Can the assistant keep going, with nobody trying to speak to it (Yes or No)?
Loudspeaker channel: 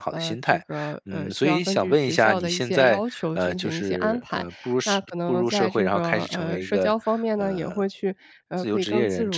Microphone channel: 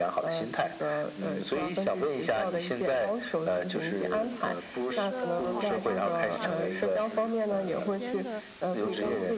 No